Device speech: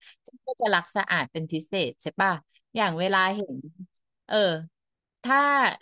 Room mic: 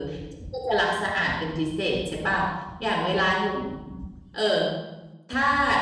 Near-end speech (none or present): none